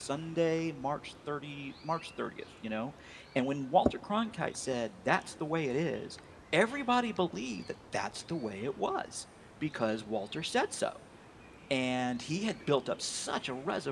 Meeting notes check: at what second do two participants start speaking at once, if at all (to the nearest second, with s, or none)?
none